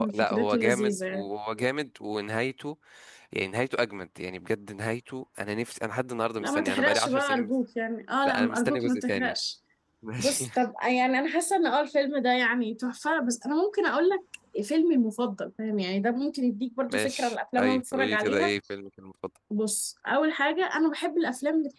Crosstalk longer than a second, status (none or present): present